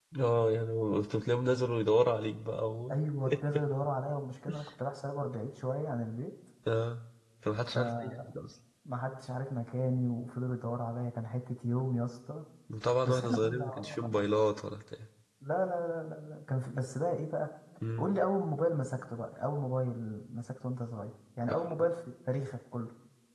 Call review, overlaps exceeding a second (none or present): present